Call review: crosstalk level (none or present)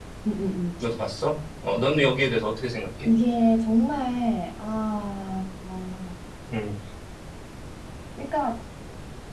none